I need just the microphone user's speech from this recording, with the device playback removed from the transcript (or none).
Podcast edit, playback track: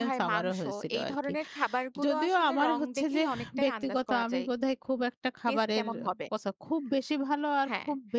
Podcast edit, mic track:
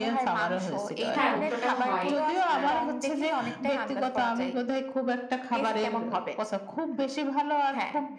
হ্যাঁ উল্টোটাও হয়। আ